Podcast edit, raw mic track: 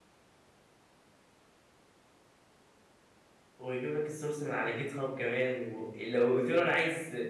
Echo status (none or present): none